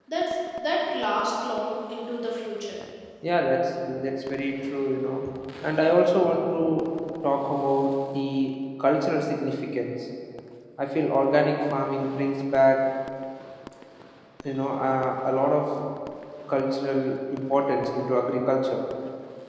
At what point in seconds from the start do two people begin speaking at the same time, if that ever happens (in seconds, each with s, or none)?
none